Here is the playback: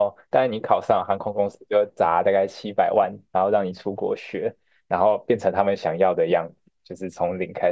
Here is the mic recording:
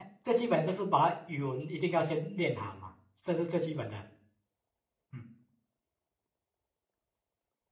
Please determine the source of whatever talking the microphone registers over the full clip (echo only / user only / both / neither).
user only